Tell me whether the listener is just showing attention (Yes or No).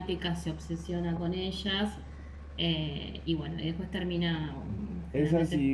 No